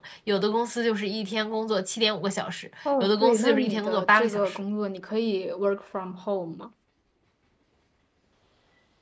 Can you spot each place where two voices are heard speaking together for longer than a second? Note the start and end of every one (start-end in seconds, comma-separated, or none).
3.0-4.6